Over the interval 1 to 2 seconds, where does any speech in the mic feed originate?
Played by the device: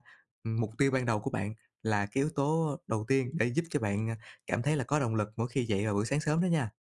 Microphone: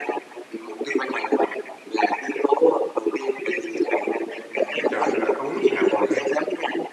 echo only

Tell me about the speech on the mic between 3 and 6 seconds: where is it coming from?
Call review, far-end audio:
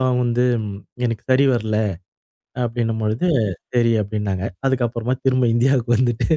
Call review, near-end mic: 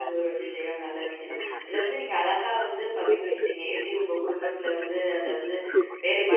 both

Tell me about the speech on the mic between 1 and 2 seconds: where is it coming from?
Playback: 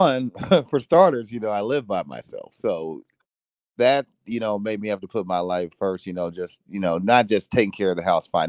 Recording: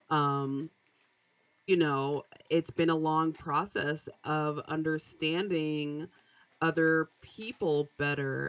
user only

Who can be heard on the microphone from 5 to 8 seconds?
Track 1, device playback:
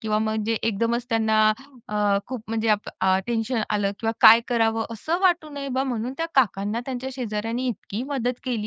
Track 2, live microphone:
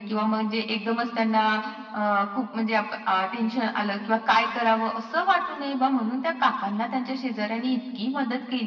echo only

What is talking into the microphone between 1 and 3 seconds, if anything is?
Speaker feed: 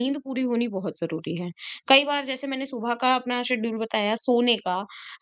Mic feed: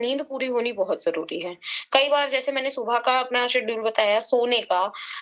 echo only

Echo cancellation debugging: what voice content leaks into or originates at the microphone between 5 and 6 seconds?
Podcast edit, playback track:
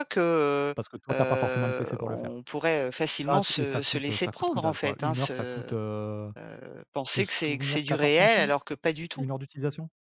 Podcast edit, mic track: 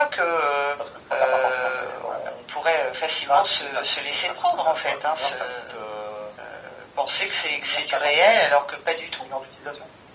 echo only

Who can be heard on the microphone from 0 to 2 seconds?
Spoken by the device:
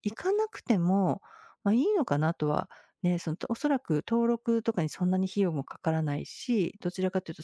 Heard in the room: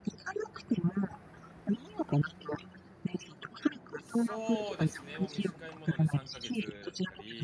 echo only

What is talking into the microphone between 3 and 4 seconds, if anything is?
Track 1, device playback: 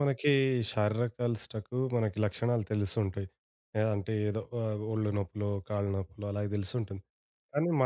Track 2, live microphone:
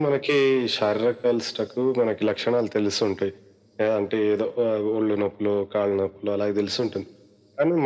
echo only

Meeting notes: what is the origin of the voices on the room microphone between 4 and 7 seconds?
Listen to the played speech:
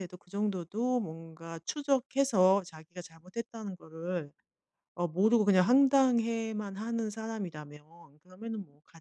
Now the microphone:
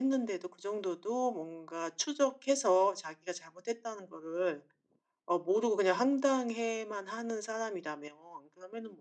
echo only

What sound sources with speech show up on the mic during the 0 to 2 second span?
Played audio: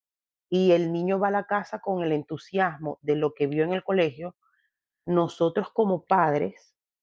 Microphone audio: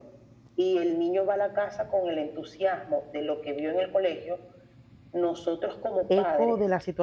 echo only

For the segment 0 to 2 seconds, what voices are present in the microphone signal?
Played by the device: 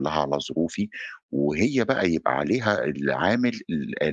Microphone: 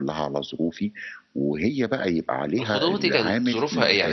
echo only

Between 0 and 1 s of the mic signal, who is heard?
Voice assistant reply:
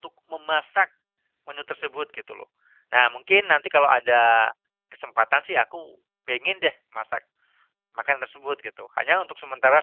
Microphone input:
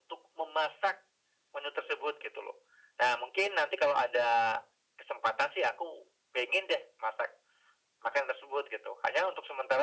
echo only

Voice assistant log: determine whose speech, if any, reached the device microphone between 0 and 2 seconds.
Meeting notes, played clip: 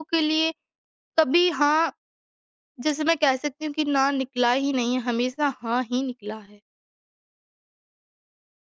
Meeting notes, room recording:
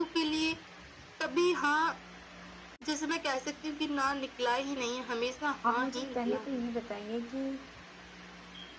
echo only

